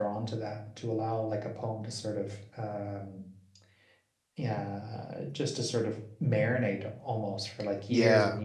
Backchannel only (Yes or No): Yes